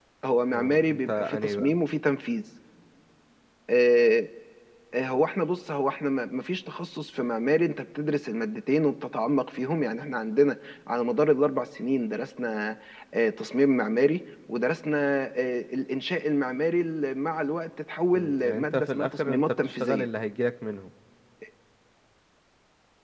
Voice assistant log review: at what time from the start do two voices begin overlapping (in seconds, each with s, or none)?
0.5 s